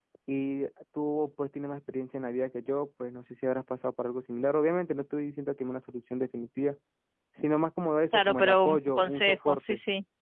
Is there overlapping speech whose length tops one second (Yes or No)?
Yes